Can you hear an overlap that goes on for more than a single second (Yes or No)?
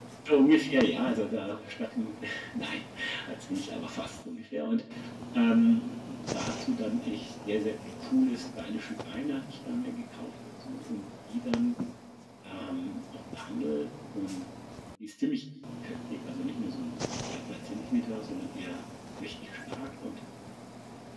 No